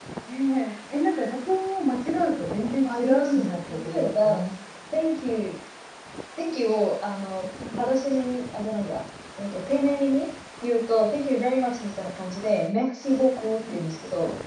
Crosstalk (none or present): present